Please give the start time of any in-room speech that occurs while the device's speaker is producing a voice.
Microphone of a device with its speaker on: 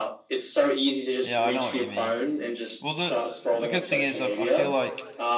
1.2 s

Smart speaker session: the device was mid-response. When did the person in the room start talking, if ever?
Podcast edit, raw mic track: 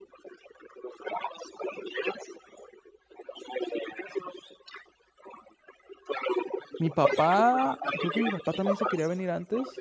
6.8 s

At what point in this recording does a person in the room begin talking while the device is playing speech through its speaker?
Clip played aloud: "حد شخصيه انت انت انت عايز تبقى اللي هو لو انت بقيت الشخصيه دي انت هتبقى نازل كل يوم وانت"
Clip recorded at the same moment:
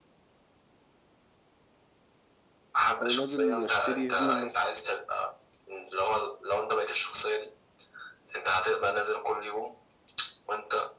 3.0 s

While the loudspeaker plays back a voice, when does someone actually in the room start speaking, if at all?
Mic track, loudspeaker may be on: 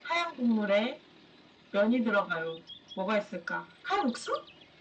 none

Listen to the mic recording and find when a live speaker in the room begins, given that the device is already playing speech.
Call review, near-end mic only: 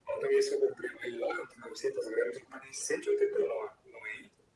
none

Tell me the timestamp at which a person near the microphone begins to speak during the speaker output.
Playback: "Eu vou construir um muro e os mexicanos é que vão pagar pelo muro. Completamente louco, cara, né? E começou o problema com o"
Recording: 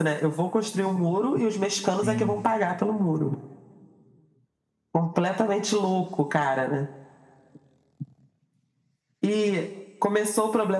2.0 s

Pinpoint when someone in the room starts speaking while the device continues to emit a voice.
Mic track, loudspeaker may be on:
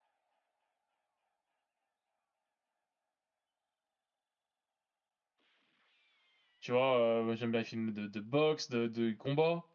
6.6 s

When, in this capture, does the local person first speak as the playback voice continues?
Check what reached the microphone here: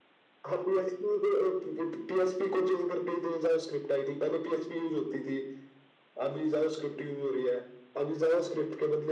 none

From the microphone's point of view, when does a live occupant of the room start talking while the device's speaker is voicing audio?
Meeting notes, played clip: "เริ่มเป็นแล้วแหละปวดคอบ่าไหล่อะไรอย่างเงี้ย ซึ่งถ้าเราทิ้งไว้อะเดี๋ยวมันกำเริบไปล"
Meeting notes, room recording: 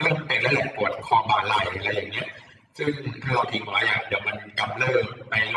none

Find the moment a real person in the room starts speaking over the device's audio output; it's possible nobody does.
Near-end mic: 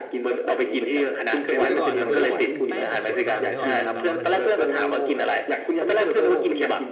1.5 s

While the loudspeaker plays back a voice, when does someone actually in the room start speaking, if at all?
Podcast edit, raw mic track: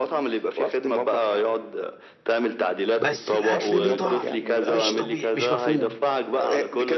3.0 s

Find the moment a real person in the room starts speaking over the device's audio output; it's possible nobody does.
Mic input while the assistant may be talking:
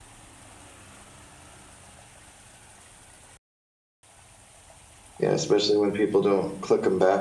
5.2 s

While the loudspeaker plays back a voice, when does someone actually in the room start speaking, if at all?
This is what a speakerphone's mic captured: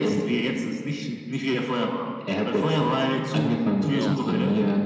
3.9 s

